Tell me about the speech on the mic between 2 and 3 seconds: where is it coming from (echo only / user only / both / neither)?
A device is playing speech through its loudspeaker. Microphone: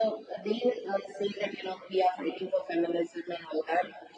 echo only